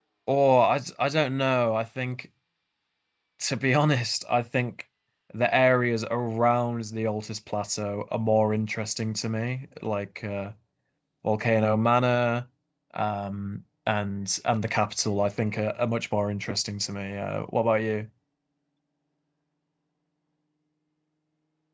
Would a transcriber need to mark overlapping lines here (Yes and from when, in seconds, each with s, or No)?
No